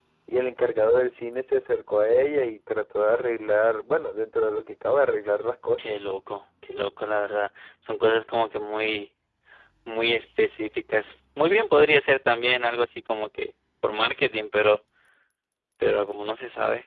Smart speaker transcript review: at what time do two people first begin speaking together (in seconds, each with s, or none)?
none